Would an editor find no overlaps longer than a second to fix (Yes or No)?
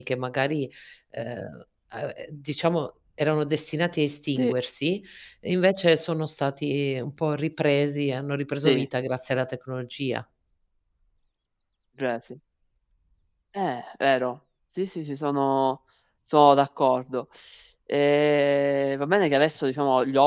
Yes